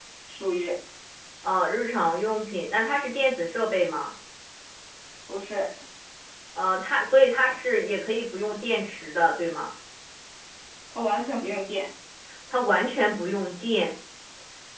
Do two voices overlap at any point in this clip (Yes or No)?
No